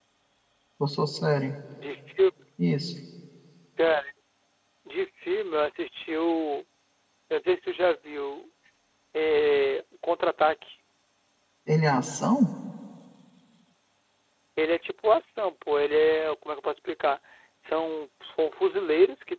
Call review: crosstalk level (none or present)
none